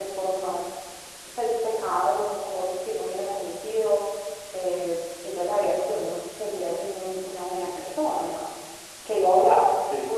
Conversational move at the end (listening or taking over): listening